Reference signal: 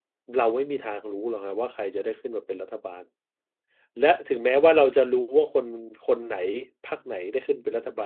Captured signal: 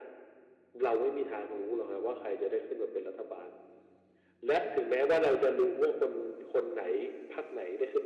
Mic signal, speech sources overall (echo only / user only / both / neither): echo only